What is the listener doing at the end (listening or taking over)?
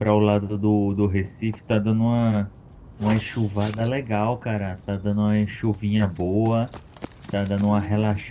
listening